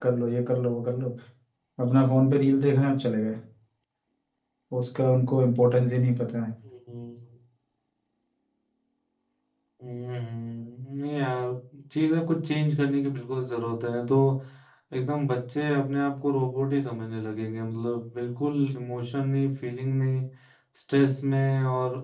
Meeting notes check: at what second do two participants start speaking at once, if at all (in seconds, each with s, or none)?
none